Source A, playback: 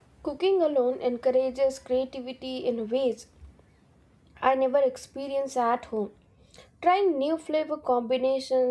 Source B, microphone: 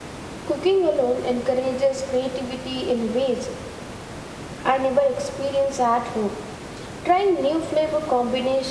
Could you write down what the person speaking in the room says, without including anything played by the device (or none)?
none